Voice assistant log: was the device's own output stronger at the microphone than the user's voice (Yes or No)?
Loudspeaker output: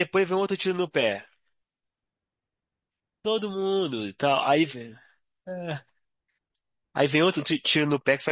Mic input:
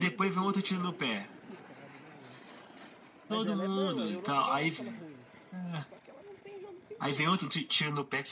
Yes